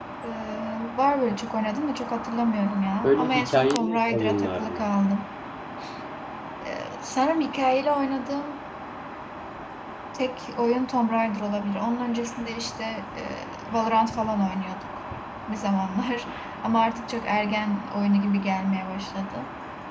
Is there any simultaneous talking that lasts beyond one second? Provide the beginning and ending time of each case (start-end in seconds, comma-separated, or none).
3.0-4.9